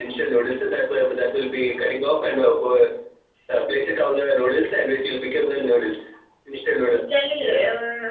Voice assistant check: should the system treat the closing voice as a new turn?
Yes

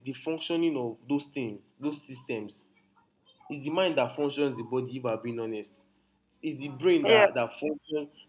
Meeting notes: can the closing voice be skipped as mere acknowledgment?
Yes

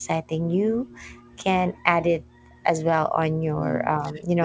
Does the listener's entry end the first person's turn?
Yes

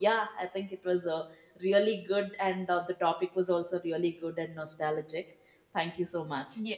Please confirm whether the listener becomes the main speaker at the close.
Yes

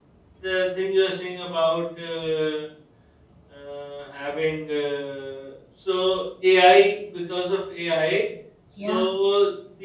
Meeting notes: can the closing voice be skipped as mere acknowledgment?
Yes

